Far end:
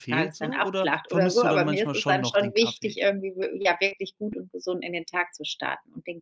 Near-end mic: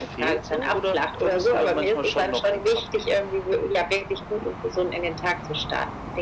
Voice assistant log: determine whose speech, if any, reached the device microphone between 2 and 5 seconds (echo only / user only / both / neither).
echo only